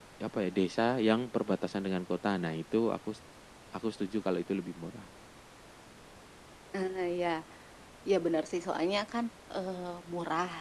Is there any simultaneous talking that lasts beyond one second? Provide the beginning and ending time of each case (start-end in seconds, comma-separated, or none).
none